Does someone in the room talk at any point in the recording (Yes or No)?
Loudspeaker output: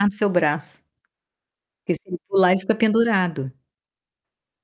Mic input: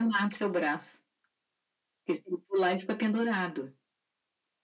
No